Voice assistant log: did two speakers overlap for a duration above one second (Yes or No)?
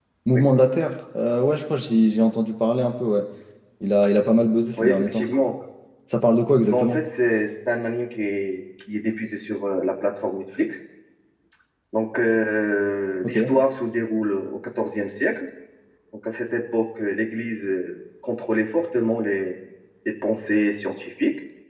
No